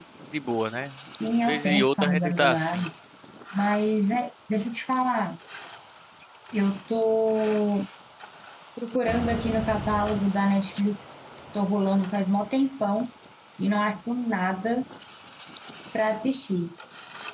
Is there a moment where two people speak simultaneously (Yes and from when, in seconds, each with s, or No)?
Yes, from 1.5 s